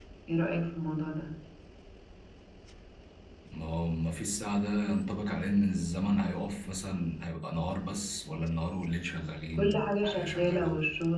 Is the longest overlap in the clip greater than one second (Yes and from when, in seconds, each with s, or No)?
Yes, from 9.6 s